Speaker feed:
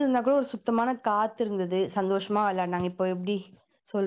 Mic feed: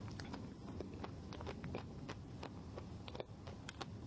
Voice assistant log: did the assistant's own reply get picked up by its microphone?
No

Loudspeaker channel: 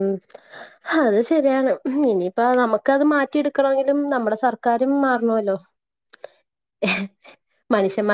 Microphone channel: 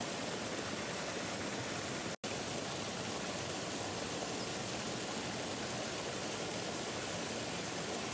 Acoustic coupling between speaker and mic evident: No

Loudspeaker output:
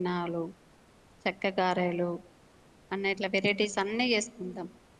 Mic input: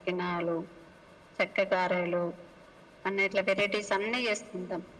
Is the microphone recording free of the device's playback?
No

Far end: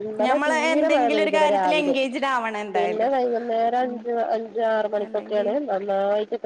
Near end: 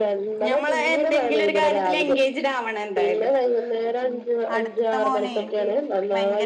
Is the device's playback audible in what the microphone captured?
Yes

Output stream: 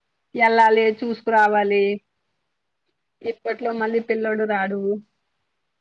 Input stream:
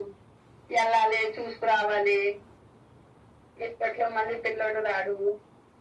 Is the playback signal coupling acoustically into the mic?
Yes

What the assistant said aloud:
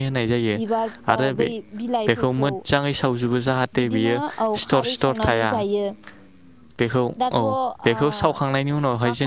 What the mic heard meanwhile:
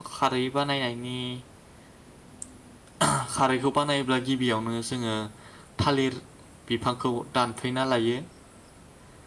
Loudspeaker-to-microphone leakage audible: No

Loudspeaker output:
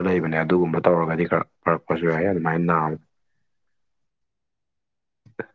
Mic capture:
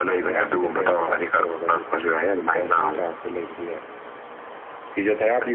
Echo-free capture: No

